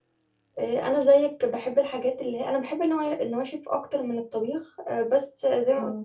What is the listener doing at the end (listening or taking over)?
listening